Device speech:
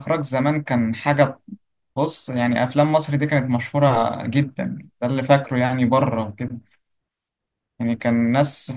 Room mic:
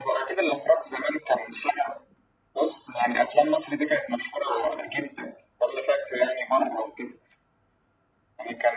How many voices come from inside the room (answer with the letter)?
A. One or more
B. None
B